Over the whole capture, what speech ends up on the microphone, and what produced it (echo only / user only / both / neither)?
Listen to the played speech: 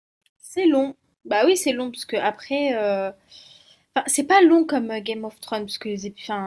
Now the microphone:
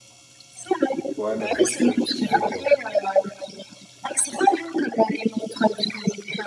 both